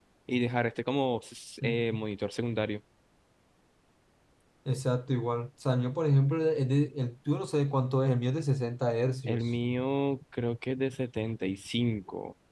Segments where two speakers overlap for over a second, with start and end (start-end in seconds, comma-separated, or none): none